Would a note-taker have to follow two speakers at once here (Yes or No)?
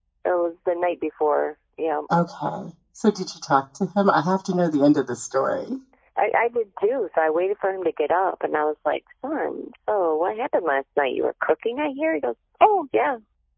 No